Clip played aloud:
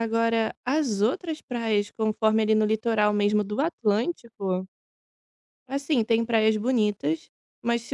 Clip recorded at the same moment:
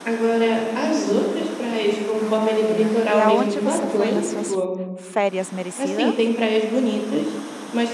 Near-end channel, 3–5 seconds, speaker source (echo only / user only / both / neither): both